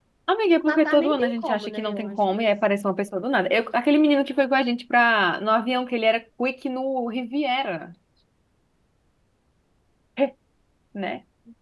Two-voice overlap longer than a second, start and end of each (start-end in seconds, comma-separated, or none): 0.6-2.5